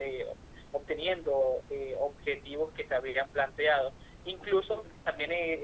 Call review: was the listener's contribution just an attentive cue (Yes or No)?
Yes